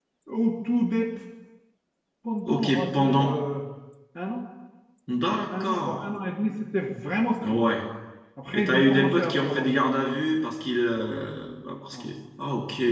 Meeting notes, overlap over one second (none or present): present